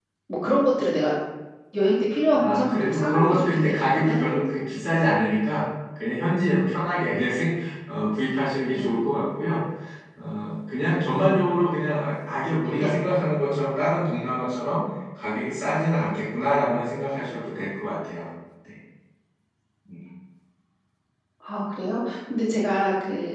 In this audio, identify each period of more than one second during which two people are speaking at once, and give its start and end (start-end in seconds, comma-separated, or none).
2.3-4.2